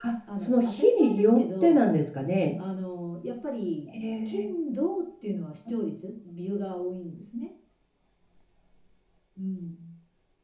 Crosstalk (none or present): present